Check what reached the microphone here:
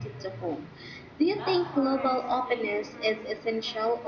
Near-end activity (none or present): present